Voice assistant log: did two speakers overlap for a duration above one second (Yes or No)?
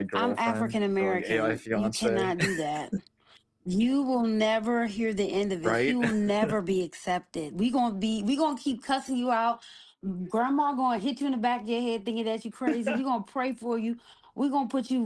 Yes